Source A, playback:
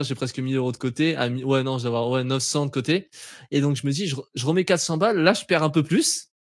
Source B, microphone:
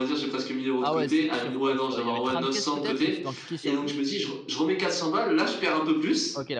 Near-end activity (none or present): present